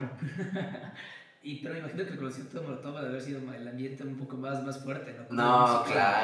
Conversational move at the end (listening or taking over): taking over